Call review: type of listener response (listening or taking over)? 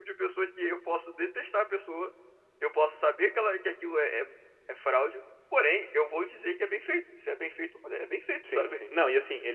taking over